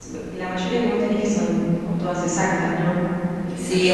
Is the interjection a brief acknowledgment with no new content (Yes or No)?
No